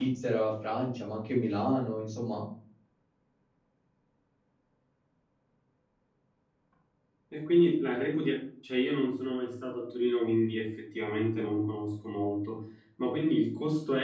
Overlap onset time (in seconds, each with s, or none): none